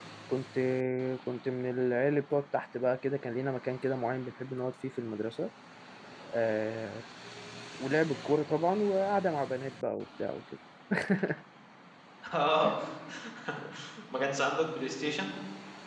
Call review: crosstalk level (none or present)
none